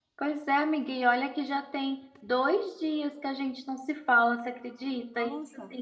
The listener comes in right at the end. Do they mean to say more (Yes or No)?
No